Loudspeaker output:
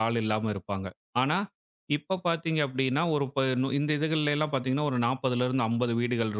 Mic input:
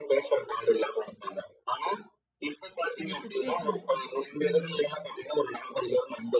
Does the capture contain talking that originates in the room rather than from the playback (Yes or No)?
Yes